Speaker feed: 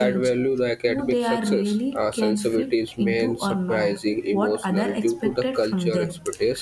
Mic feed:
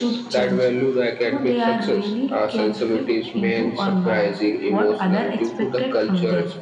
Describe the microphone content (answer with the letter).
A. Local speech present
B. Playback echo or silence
B